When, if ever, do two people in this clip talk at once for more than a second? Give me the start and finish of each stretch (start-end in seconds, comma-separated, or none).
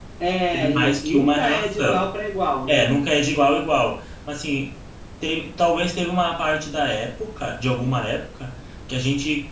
0.5-2.1